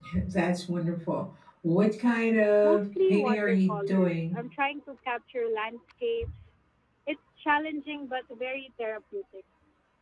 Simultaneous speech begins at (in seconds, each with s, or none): 2.6 s